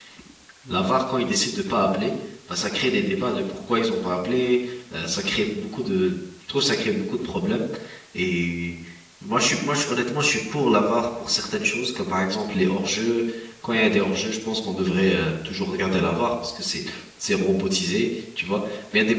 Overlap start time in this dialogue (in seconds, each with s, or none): none